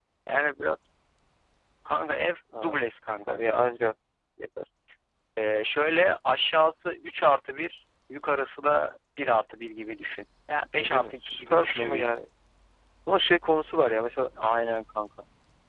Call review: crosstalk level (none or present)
present